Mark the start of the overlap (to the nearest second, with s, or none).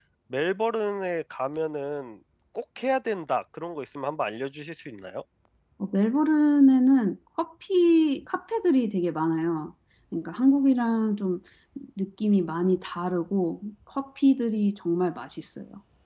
none